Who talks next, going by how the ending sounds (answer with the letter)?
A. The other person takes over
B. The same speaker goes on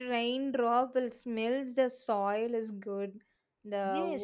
A